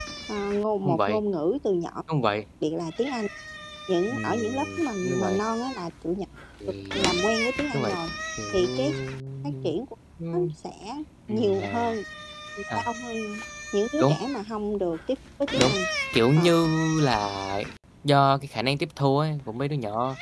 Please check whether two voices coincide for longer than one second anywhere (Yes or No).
Yes